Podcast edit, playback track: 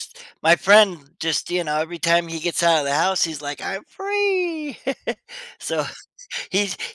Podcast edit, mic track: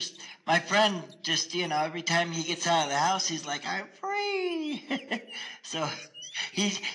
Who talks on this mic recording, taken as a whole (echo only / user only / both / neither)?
echo only